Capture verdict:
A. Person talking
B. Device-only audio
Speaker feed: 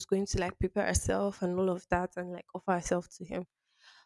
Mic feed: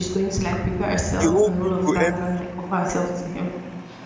A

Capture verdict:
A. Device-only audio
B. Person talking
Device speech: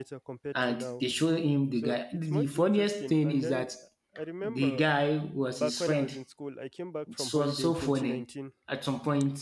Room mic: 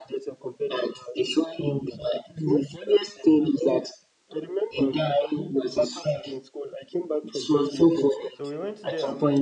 B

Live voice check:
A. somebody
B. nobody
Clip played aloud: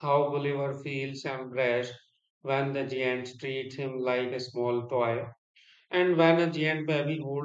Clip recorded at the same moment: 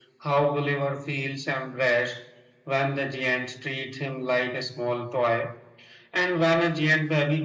B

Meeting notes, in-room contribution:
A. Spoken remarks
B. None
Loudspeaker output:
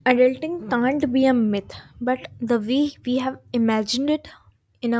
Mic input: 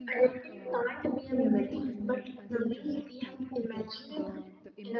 A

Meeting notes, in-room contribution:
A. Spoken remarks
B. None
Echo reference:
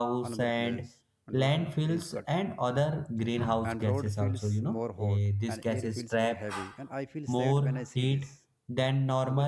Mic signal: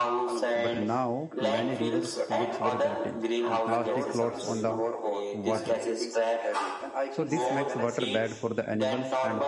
A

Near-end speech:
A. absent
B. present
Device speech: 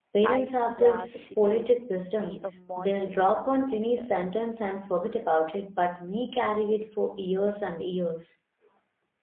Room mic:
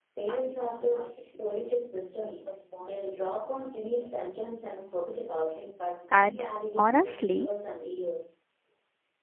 B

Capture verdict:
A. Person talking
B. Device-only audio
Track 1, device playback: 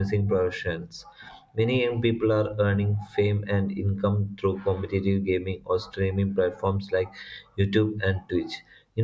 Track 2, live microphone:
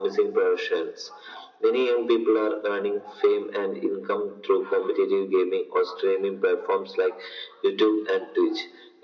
B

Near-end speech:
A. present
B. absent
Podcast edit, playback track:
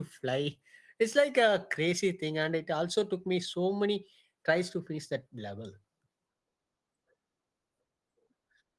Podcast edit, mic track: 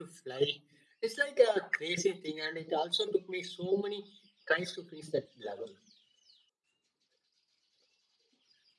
B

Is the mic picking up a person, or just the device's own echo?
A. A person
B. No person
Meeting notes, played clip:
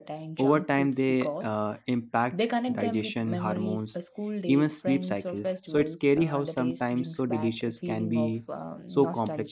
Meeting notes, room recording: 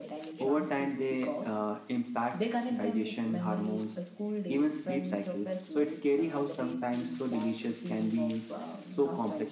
B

